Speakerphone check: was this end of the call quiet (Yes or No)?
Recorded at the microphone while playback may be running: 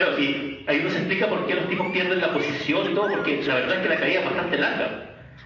Yes